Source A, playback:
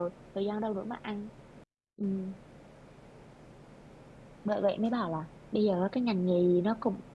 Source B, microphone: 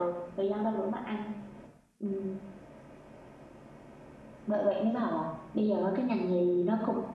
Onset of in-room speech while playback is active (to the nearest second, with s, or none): none